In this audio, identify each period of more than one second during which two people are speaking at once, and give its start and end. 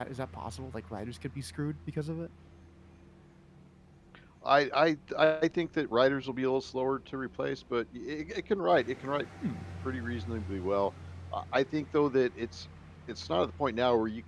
none

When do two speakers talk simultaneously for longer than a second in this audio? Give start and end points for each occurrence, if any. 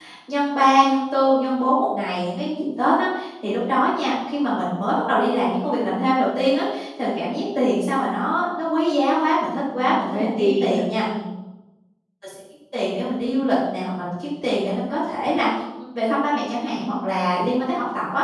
9.7-11.0

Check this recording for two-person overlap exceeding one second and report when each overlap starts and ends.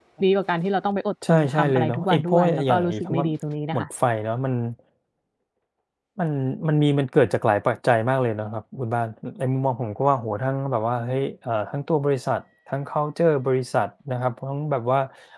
1.3-3.2

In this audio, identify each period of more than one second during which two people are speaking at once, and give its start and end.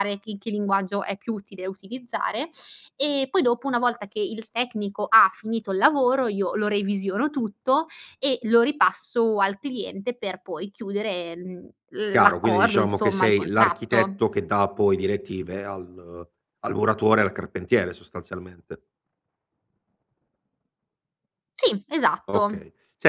12.2-14.1

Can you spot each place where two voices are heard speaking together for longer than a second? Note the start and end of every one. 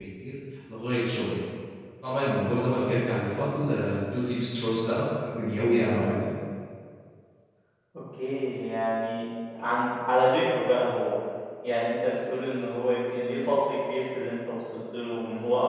none

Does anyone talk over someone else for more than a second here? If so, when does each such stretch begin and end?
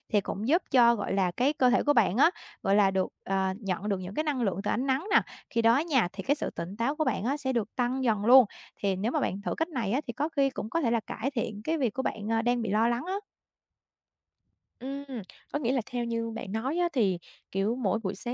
none

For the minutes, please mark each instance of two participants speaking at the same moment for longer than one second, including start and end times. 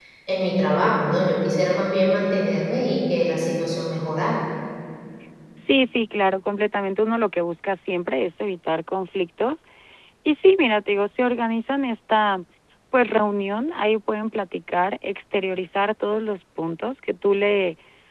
none

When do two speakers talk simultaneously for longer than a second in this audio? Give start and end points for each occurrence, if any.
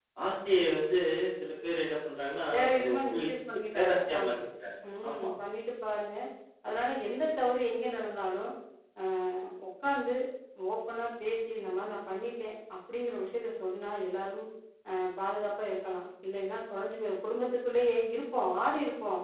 2.5-4.3

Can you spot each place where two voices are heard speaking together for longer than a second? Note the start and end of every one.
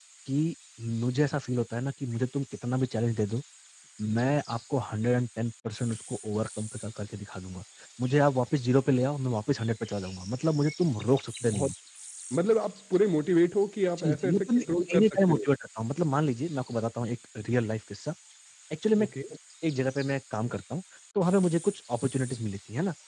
14.0-15.4

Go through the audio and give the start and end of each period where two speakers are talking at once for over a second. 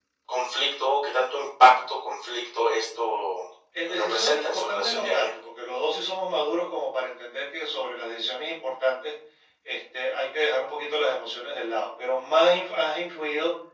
3.8-5.3

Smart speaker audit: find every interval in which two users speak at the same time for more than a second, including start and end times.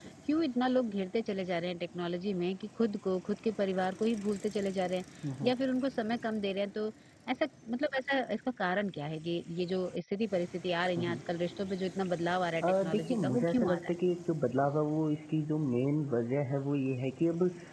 12.6-14.0

